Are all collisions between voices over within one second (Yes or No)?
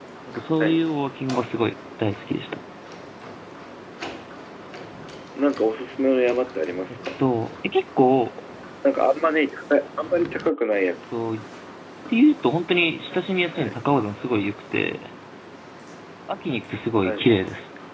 Yes